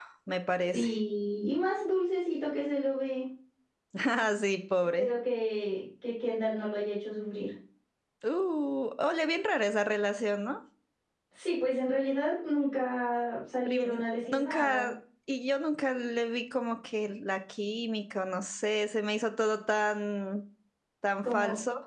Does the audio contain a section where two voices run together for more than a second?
Yes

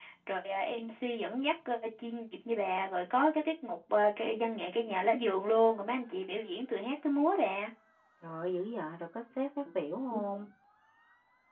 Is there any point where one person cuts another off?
No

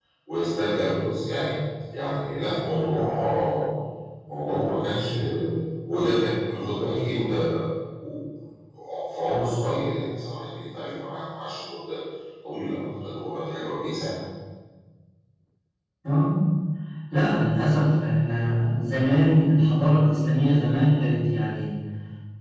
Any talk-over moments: No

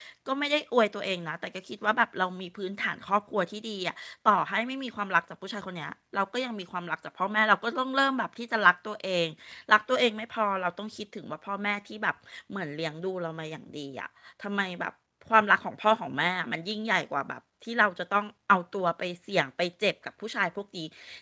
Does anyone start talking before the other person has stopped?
No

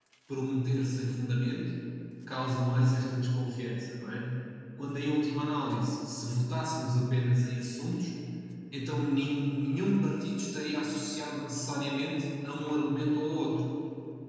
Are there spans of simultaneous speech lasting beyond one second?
No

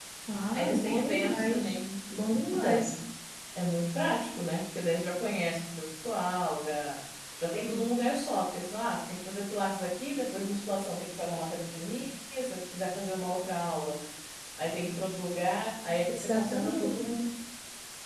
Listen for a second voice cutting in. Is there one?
Yes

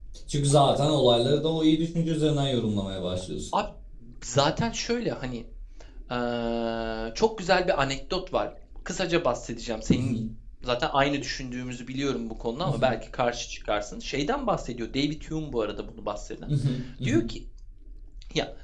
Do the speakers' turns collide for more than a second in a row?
No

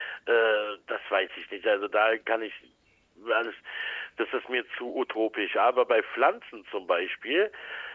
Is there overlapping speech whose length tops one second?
No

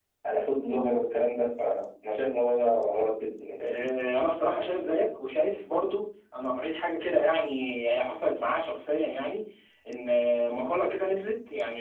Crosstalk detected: No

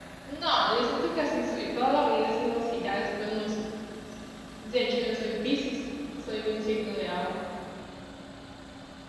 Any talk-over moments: No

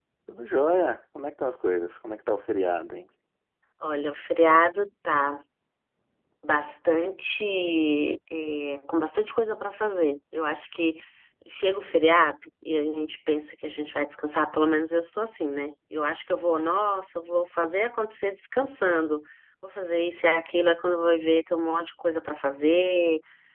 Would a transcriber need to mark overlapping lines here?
No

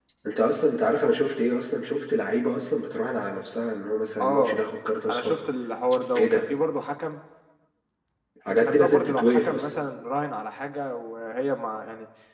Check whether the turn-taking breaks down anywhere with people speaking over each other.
Yes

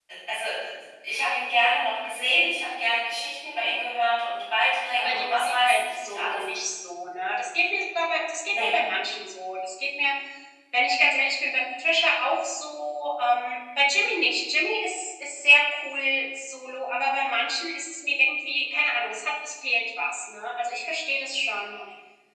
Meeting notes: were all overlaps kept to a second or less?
No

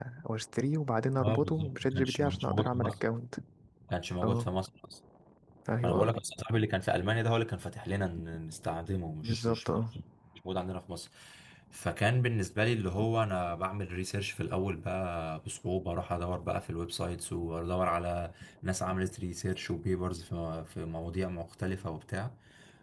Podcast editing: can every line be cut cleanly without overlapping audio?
No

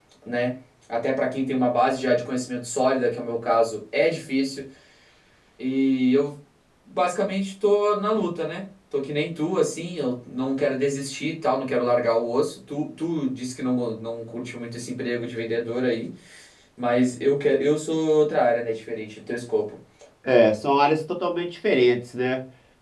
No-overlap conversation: Yes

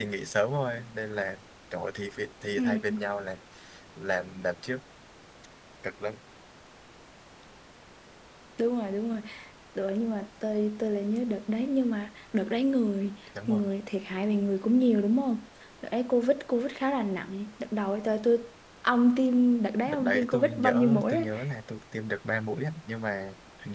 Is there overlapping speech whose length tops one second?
Yes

